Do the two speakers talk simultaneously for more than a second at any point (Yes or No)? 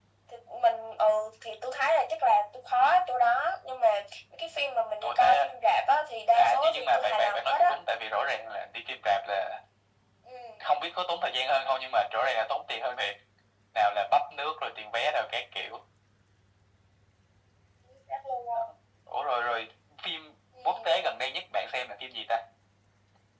Yes